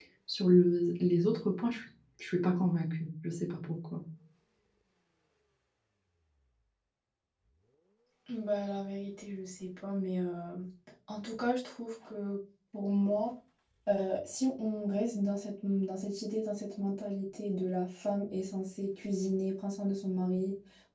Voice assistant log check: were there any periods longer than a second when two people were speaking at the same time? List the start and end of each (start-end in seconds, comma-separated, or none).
none